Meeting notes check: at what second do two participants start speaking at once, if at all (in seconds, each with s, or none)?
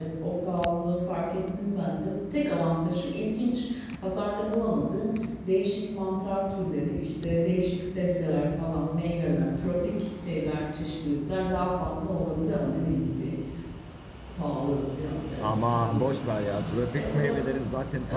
15.4 s